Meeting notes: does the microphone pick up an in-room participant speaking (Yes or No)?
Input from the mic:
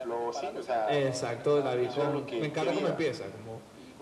Yes